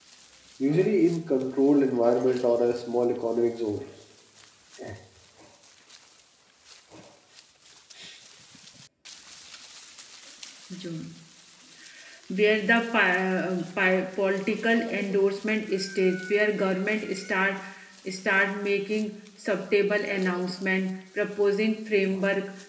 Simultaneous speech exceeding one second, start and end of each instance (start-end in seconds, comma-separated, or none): none